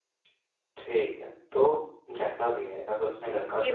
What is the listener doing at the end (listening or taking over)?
taking over